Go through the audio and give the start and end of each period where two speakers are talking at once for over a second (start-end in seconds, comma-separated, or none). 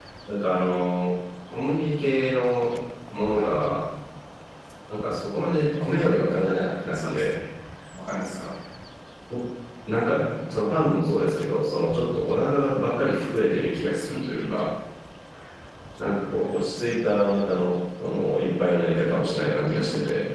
none